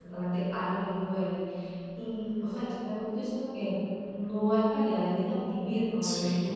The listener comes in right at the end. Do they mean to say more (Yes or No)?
Yes